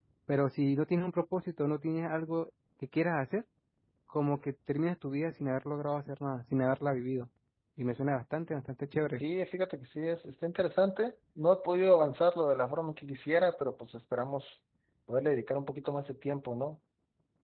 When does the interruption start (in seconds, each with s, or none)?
none